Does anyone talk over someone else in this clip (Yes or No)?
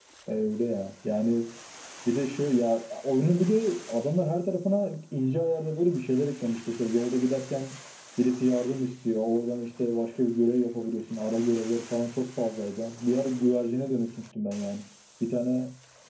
No